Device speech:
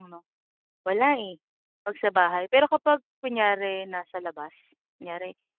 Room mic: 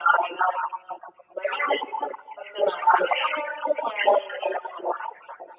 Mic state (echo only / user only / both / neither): echo only